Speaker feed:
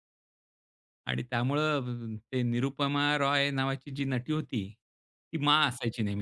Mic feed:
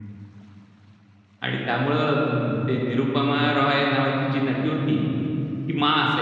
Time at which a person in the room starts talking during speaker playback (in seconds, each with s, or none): none